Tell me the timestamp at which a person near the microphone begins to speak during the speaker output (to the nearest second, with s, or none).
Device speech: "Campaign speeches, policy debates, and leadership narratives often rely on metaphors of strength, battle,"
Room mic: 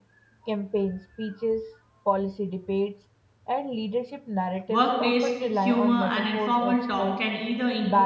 5 s